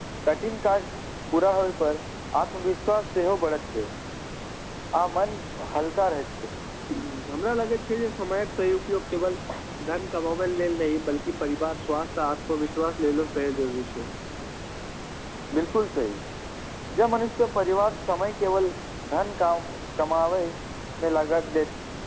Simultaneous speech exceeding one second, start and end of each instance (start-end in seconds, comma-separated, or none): none